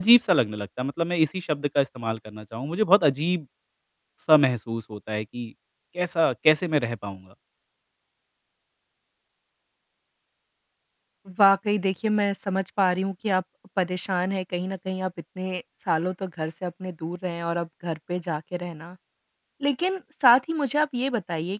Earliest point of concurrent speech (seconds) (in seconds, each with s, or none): none